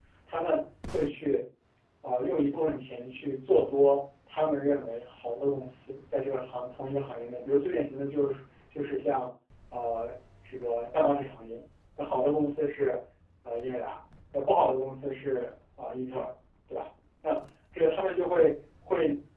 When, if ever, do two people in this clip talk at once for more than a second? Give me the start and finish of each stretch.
none

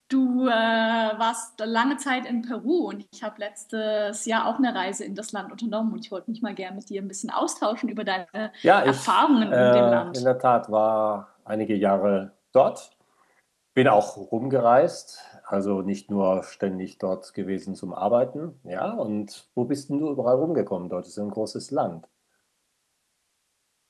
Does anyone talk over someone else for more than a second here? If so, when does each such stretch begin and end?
8.6-10.2

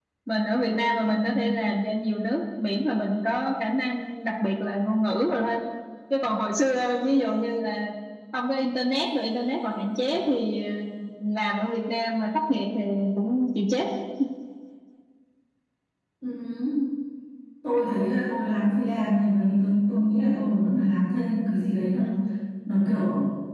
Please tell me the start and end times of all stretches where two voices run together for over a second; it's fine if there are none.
none

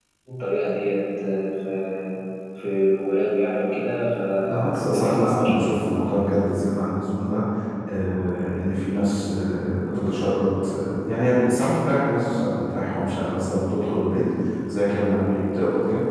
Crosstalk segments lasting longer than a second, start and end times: 4.5-5.8

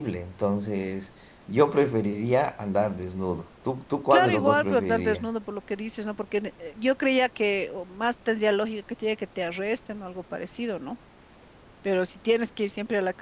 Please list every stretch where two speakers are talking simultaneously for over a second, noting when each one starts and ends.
4.1-5.3

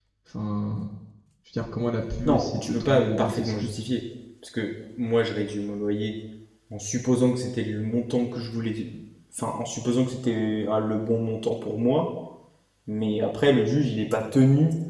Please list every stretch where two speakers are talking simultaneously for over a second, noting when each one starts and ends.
2.2-3.7

